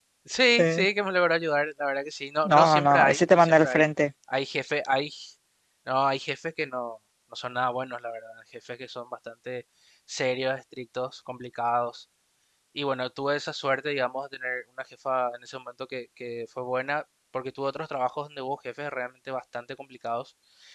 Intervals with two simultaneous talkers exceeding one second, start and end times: 2.5-3.8

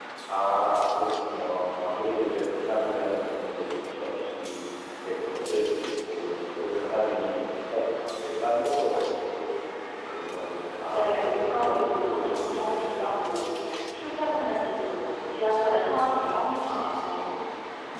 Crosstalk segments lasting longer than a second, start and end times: 10.9-13.0

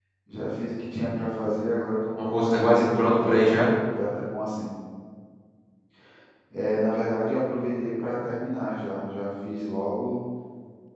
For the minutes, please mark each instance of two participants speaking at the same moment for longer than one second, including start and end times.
2.2-3.5

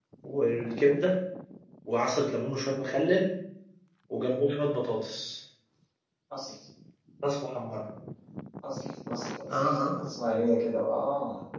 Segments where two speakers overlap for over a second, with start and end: none

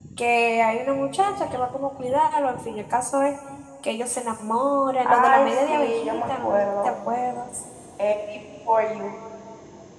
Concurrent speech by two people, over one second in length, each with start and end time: 5.0-6.9

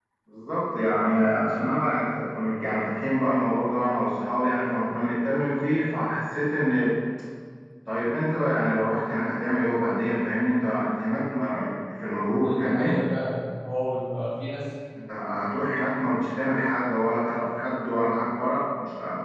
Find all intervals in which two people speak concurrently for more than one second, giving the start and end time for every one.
none

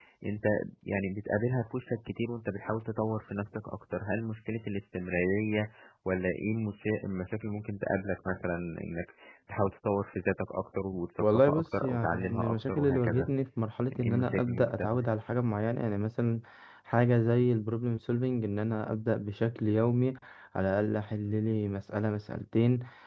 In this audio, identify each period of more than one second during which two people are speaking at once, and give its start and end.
11.2-13.3, 13.9-15.1

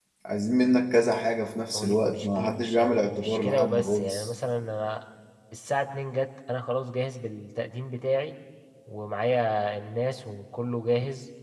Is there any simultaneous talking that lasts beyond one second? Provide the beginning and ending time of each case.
1.8-4.3

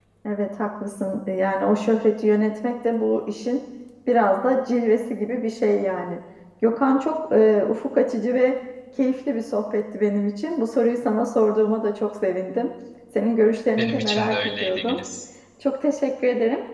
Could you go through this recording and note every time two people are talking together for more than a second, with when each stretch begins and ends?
13.8-15.0

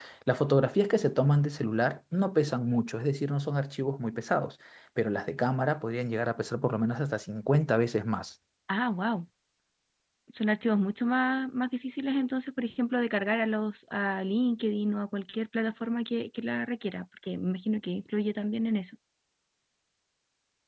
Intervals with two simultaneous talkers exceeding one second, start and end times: none

